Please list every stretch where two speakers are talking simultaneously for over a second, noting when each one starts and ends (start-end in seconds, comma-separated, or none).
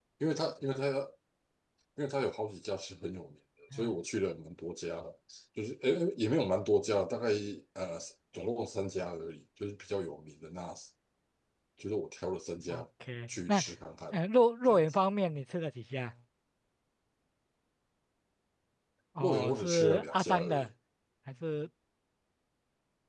19.2-20.7